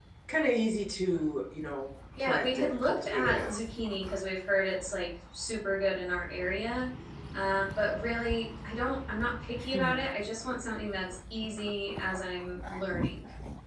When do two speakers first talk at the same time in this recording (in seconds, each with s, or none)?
2.2 s